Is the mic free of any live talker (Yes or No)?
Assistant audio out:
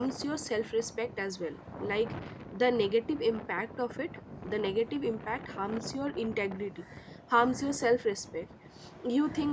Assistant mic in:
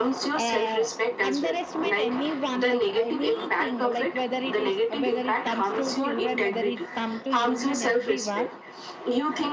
No